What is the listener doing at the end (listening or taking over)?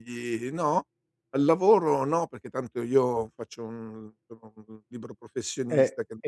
taking over